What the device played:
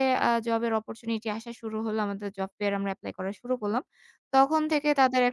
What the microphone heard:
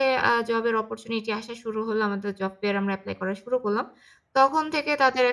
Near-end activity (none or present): none